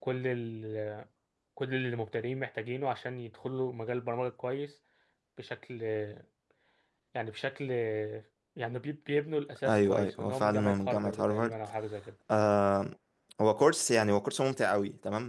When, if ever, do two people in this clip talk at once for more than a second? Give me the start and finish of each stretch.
9.7-11.5

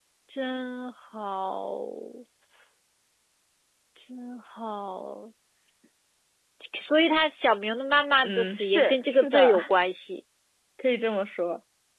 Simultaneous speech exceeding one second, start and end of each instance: 8.2-9.6

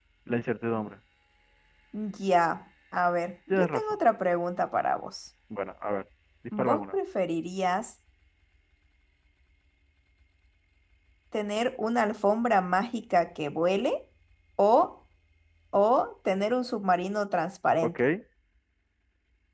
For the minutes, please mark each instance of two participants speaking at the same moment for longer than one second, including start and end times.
none

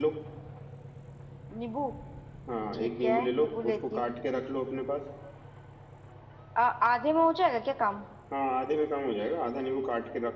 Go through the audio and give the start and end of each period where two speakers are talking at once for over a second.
2.7-4.1

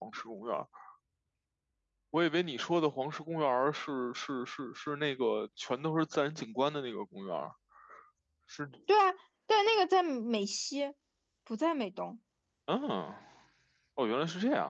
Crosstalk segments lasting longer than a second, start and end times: none

